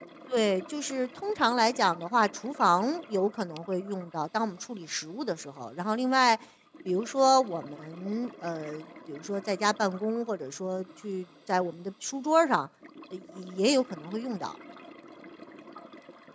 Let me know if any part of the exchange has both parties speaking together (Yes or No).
No